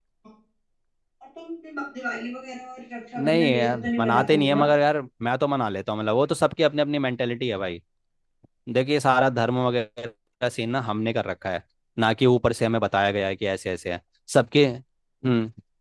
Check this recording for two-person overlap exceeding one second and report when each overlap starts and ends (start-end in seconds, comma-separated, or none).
3.2-4.7